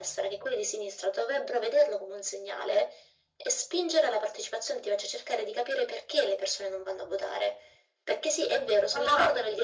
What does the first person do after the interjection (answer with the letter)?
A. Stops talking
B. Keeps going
B